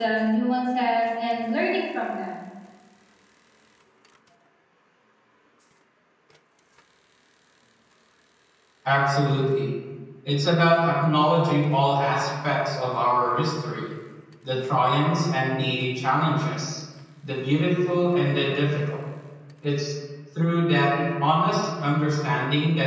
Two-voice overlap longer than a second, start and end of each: none

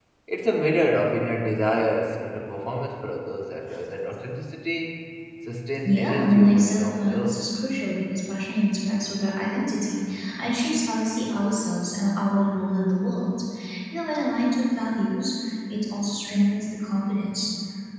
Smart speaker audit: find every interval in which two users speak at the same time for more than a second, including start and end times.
5.8-7.5

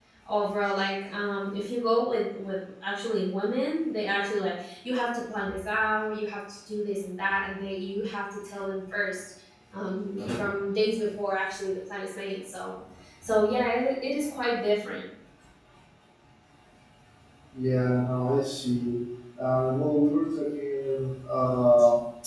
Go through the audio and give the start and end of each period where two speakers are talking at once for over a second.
none

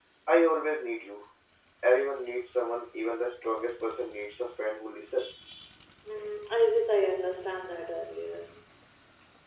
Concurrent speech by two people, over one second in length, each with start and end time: none

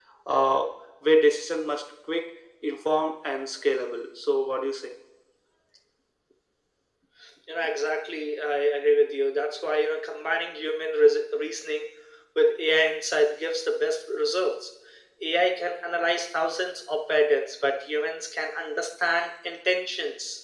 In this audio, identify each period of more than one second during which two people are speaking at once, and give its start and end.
none

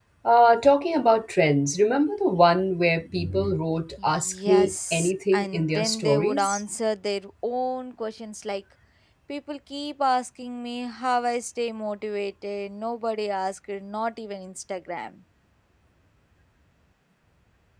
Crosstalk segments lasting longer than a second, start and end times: 4.0-6.6

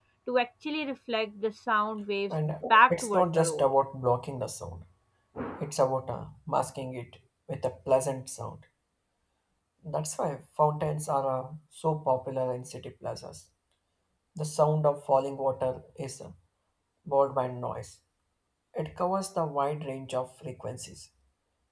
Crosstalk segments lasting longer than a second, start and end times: 2.3-3.7

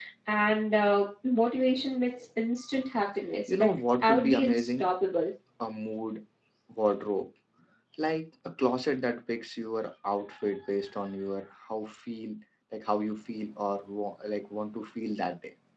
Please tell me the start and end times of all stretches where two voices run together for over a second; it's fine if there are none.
3.5-4.9

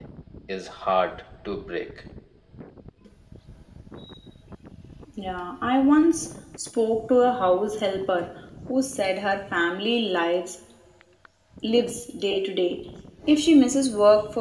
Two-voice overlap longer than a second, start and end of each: none

